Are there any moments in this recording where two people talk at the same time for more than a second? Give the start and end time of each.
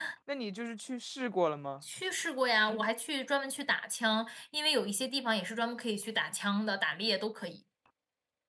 none

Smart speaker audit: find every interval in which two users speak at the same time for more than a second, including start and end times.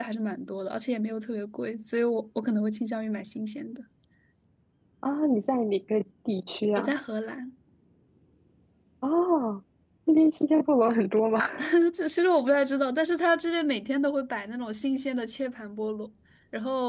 none

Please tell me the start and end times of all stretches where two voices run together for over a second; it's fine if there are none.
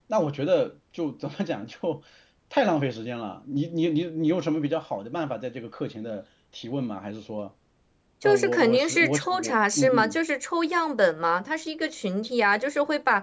8.2-10.2

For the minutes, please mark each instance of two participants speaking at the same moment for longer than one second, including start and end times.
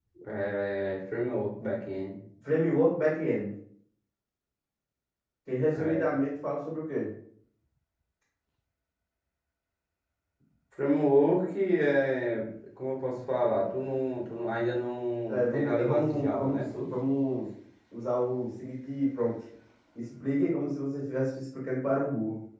15.3-16.9

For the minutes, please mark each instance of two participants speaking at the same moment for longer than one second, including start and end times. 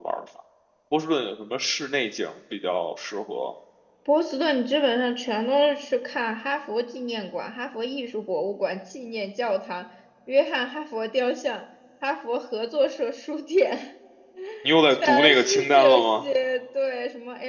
14.9-16.2

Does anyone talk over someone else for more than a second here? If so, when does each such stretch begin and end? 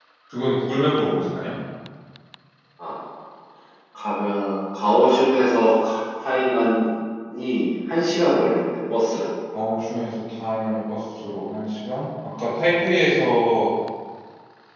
none

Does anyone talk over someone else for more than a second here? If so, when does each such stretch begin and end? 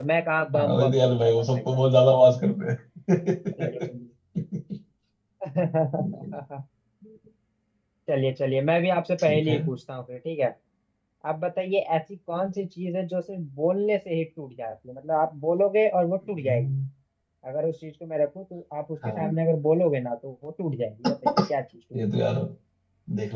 0.6-1.8

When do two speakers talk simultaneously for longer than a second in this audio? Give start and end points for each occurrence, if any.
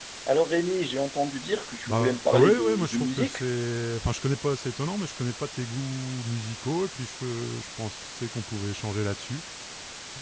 1.9-3.4

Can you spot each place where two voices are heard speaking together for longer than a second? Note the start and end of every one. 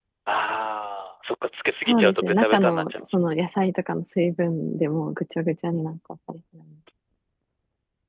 1.9-3.4

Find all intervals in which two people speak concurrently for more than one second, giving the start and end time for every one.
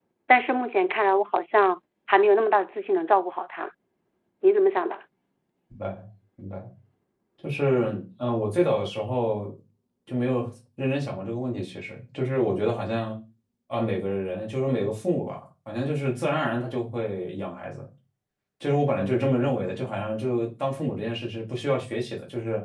none

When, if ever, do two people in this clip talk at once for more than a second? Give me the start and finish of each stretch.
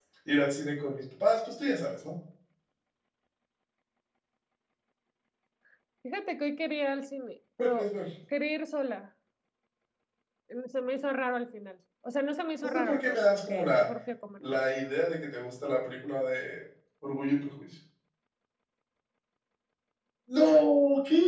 12.6-13.9

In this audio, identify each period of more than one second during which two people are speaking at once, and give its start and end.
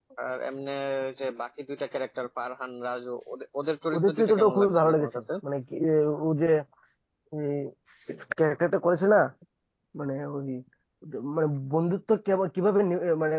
3.9-5.2

